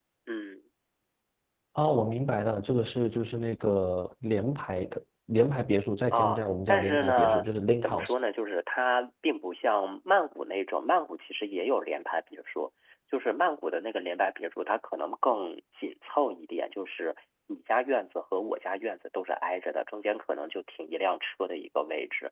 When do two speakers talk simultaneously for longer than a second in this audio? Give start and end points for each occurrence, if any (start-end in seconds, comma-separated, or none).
6.1-7.4